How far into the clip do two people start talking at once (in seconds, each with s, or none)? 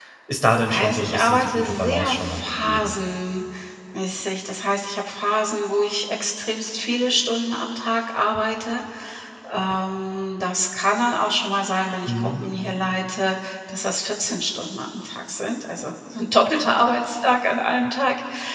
0.7 s